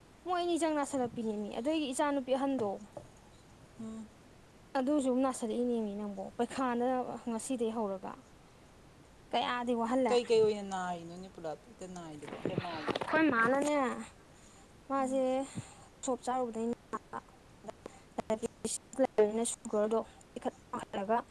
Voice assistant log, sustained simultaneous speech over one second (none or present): none